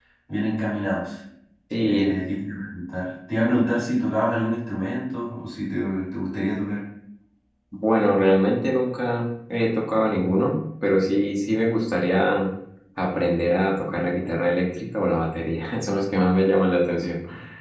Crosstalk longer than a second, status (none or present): none